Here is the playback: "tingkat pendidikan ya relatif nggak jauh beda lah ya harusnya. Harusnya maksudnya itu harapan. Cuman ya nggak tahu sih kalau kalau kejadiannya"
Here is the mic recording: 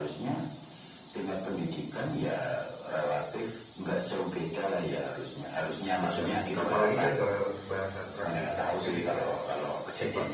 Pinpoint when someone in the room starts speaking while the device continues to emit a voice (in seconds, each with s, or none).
6.0 s